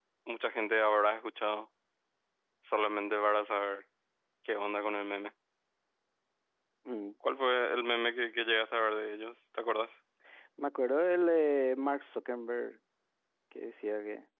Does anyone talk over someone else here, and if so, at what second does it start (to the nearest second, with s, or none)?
none